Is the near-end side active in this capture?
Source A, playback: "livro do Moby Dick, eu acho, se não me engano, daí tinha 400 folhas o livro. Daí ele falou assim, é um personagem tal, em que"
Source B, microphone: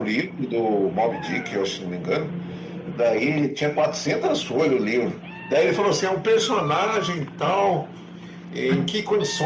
No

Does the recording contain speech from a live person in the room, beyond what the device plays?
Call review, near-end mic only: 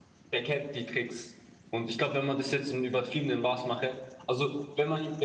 Yes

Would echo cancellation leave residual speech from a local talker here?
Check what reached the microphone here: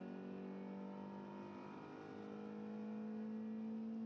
No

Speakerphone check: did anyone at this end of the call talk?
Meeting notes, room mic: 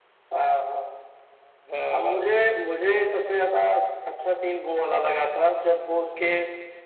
Yes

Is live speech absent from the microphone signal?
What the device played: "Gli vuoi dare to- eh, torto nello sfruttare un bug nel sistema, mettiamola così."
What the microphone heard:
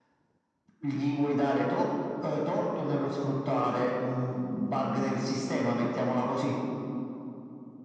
Yes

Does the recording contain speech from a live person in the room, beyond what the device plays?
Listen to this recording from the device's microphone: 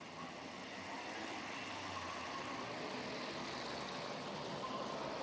No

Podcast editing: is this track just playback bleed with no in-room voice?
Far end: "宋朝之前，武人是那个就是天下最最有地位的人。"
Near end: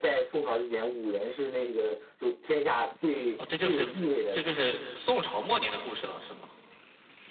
No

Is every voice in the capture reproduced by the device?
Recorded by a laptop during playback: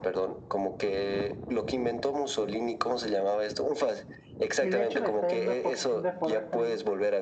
No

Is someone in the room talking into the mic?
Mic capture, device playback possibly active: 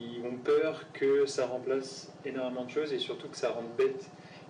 No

